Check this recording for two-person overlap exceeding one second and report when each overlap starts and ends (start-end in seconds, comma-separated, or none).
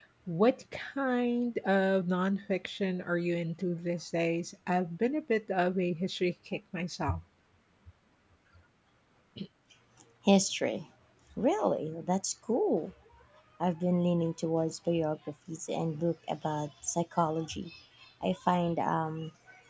none